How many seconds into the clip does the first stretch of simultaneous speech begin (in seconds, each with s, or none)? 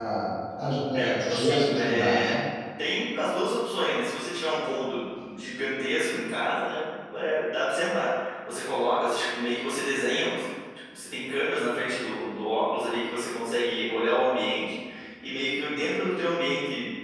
0.9 s